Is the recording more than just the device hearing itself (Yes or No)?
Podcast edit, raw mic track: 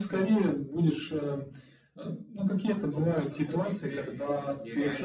No